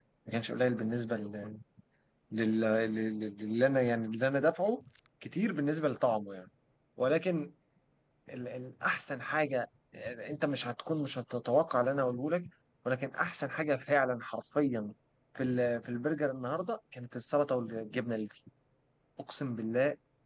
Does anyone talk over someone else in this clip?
No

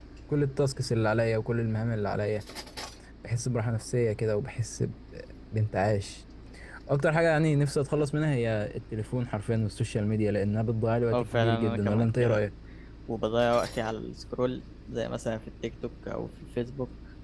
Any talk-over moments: Yes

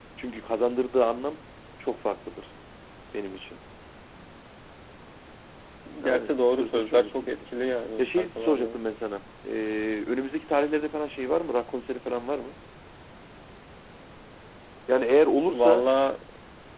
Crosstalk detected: Yes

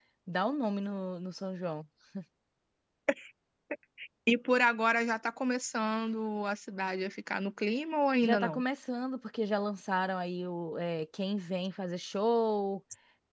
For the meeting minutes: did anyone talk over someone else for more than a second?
No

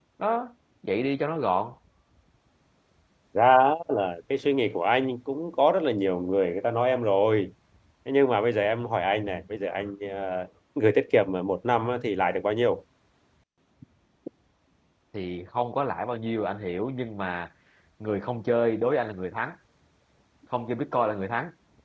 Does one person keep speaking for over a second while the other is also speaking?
No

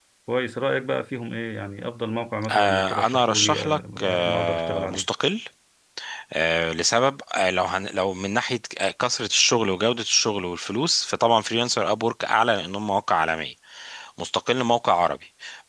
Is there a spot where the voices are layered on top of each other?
Yes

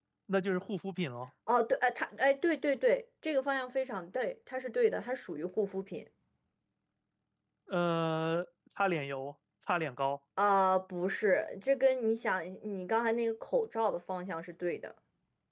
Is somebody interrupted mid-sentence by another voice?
No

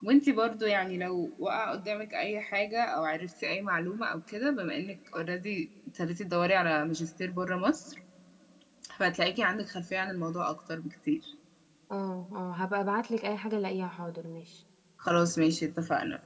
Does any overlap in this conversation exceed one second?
No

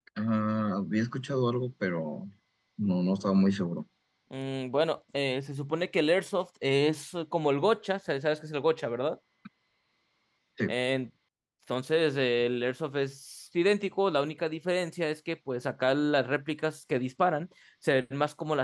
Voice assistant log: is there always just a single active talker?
Yes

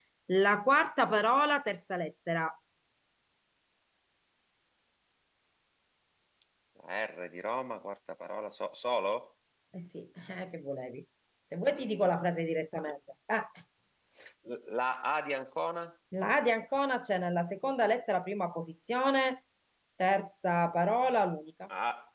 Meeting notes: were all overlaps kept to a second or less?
Yes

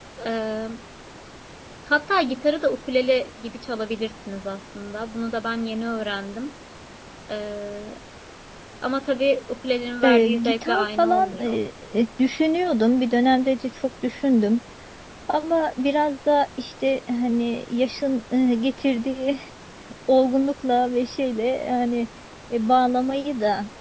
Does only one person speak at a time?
No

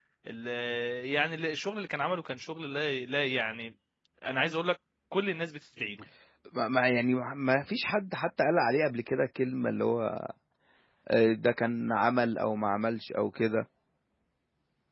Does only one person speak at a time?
Yes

